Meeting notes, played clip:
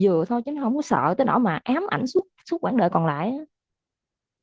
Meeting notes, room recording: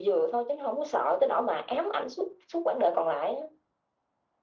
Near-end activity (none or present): none